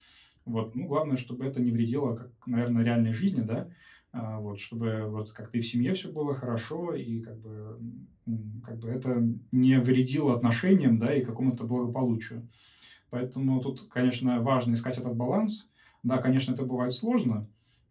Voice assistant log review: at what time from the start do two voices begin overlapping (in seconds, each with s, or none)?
none